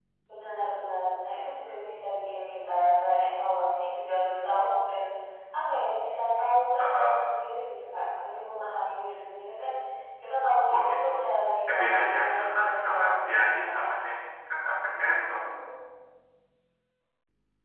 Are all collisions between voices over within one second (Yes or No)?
No